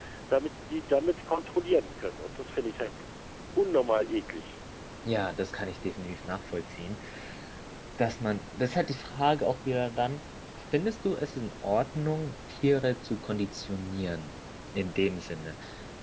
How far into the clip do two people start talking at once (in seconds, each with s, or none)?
none